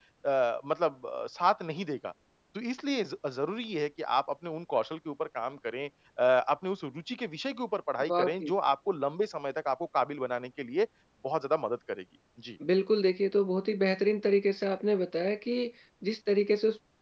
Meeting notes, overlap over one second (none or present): none